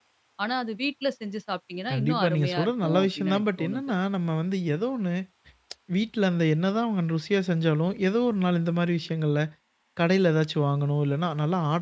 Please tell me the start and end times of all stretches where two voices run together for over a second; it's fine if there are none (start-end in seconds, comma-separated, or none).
1.9-3.9